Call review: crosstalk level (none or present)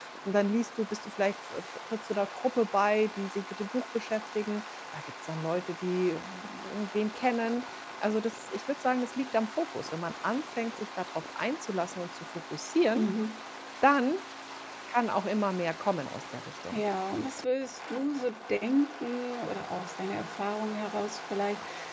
none